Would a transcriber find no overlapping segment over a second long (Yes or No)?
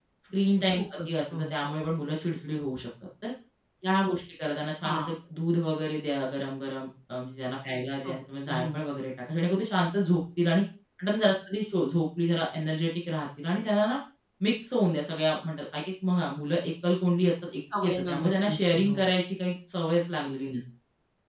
No